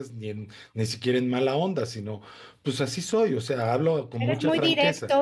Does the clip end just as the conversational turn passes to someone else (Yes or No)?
Yes